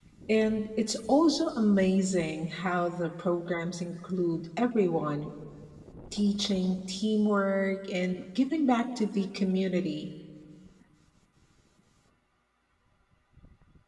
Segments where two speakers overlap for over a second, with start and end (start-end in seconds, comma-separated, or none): none